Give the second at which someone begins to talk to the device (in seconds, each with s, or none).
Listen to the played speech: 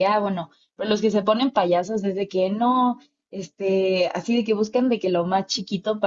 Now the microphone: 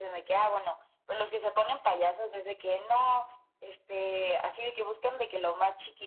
none